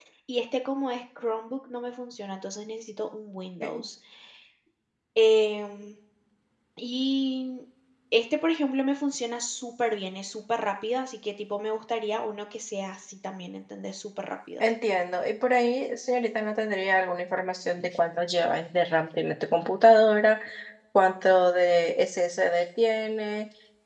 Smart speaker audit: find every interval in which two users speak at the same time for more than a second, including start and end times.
none

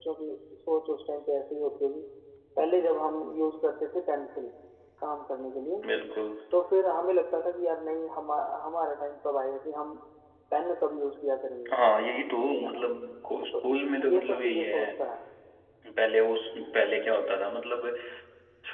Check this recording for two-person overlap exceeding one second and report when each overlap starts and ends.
13.6-14.9

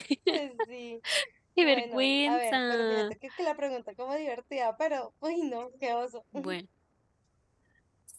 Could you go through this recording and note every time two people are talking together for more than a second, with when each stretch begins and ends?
1.6-3.1

